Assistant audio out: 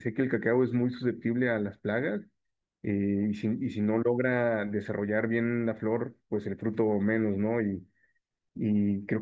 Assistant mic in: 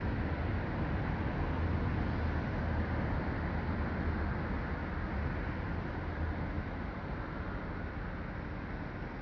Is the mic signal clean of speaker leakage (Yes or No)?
Yes